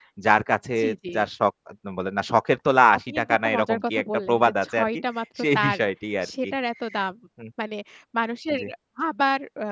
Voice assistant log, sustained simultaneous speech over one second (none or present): present